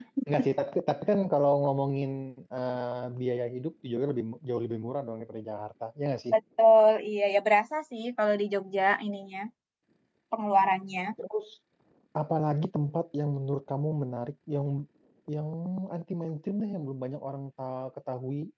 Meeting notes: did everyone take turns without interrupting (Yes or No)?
Yes